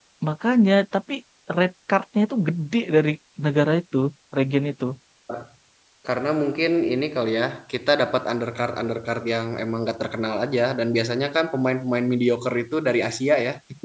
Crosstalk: none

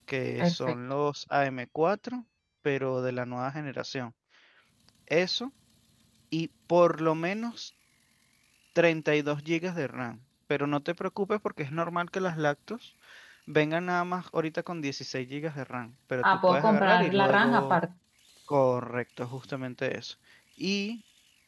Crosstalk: present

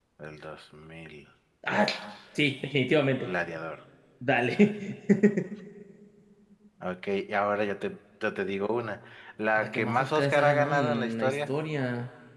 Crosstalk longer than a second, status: present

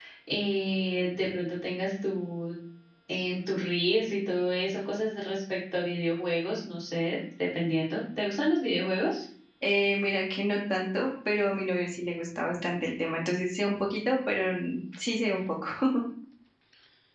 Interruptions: none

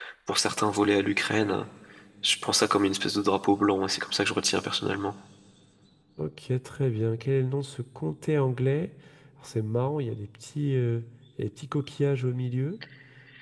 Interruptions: none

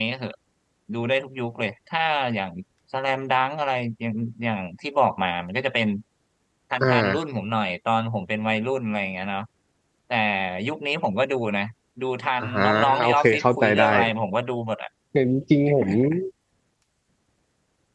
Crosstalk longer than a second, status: present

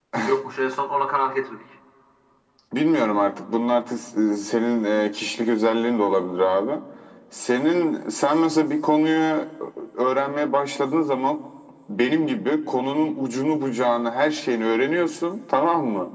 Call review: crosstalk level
none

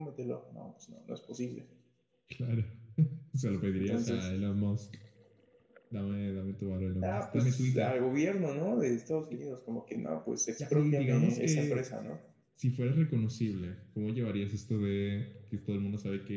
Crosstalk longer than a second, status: present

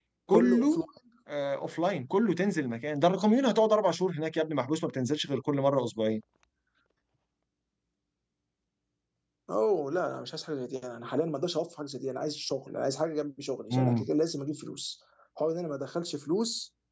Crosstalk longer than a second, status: none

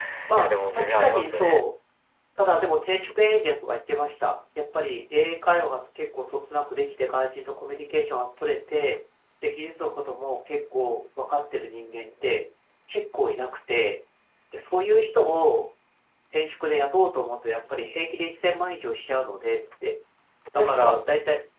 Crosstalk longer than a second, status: present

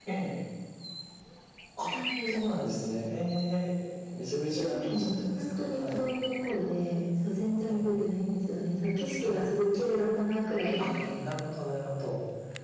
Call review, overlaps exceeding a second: present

